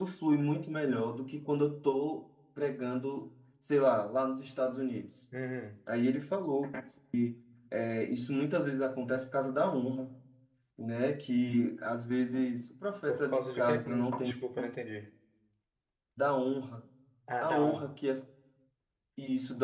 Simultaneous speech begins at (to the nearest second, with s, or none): 13 s